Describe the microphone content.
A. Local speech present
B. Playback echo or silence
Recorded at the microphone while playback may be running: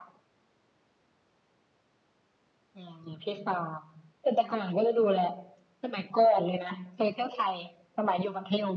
B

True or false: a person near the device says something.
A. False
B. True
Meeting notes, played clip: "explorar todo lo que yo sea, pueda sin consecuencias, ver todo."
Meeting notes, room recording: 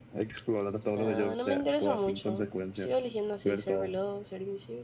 B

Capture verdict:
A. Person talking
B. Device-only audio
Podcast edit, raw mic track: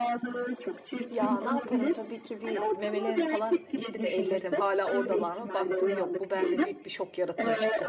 A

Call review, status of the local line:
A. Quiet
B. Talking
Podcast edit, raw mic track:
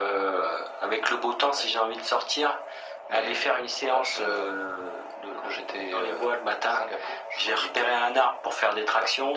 A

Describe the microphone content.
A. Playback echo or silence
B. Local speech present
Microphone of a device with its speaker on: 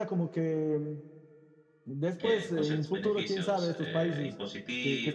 B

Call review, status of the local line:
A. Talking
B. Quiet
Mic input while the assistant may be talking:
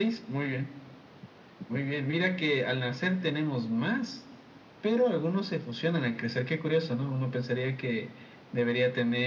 B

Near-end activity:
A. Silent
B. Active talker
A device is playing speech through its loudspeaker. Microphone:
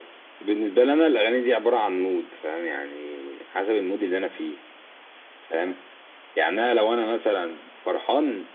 A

